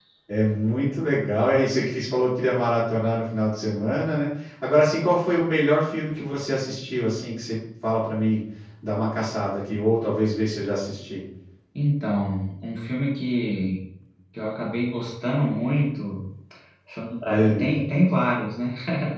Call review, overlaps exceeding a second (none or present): none